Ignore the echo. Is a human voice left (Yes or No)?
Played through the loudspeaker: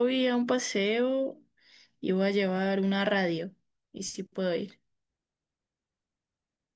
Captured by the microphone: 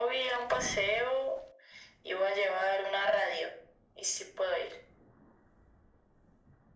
No